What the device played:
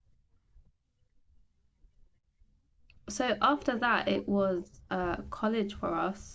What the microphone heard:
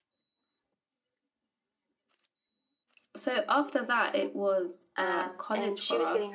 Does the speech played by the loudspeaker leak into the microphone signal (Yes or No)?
Yes